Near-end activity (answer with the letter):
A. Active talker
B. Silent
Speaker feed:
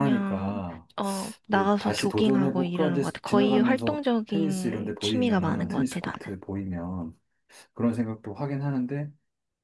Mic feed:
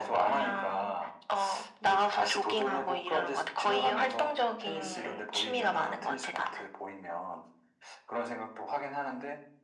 B